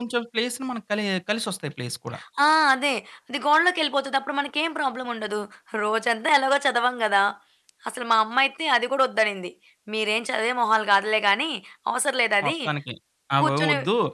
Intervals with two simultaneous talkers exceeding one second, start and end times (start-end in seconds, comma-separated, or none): none